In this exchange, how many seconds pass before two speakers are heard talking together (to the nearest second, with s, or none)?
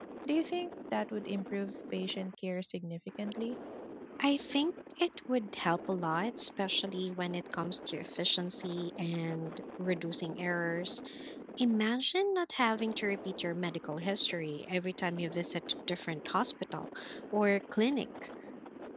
none